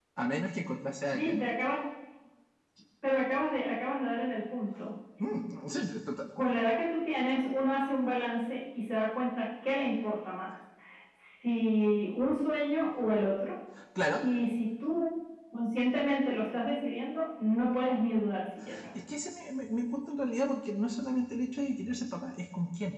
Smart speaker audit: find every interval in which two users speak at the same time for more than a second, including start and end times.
none

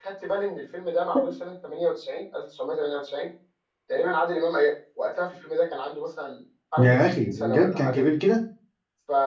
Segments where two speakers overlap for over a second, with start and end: 6.8-8.0

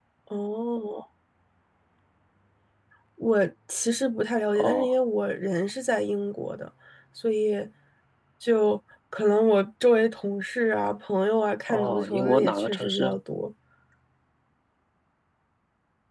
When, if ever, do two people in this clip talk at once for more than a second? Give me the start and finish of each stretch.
11.7-13.2

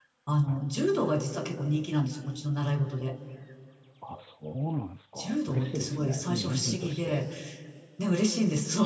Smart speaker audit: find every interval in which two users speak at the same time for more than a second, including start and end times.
5.2-7.2

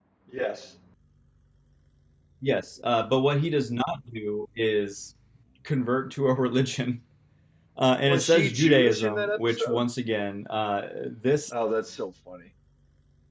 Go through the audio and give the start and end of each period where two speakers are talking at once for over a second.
8.0-9.9

